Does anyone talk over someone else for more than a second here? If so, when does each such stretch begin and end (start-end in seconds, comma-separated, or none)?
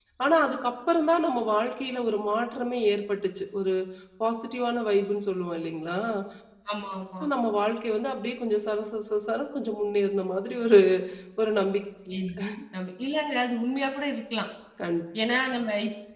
none